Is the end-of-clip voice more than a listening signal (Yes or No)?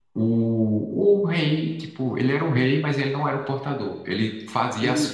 No